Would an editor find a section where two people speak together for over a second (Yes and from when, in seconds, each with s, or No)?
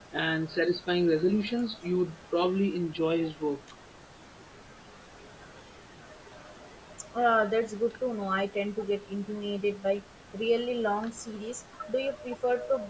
No